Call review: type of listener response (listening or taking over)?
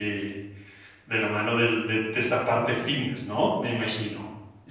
taking over